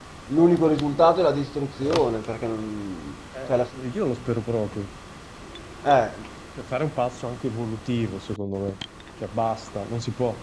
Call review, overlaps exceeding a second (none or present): none